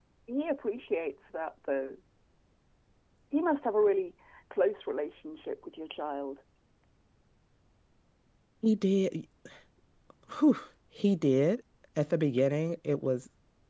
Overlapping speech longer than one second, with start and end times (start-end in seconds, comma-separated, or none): none